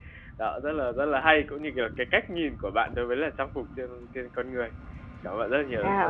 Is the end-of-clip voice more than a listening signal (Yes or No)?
Yes